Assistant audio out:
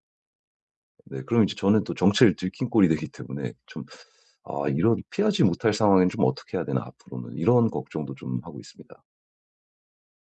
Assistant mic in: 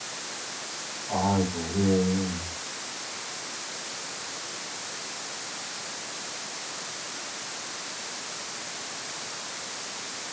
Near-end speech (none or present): present